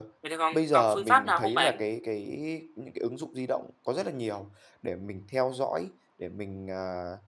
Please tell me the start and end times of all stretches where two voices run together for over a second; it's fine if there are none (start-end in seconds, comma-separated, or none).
0.5-1.8